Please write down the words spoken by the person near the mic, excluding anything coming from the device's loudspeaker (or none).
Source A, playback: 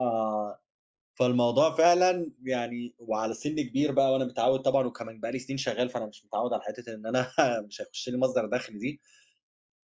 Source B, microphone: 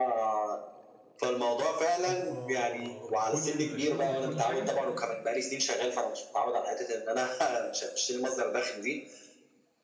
أوبا! بكلّ الشغل، بكلّ حاجة؟